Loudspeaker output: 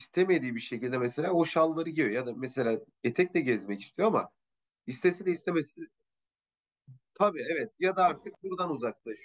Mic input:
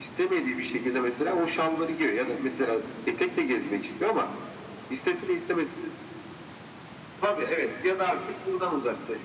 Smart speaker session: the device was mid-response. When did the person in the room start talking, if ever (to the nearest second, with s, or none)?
none